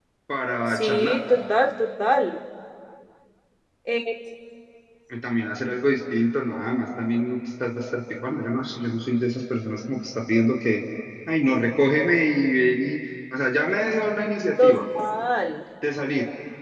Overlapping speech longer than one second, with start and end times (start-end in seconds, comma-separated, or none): none